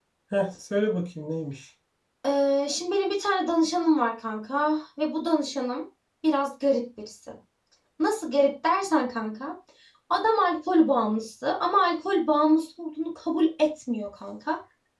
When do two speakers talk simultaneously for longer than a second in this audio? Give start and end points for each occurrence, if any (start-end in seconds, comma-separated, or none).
none